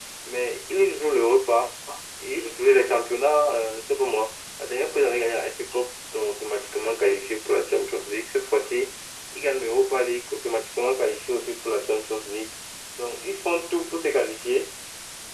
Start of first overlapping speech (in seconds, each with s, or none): none